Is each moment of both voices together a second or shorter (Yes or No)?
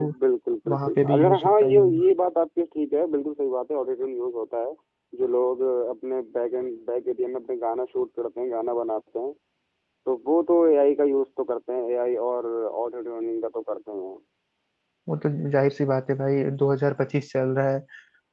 No